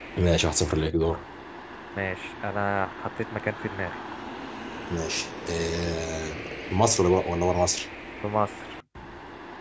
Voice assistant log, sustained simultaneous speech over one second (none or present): none